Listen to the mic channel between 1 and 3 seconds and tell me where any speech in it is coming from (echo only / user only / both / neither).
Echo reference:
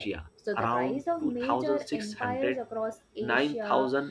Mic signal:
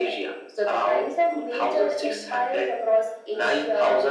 echo only